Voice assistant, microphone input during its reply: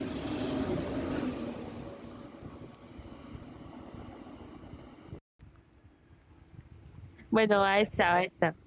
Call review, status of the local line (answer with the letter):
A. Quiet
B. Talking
B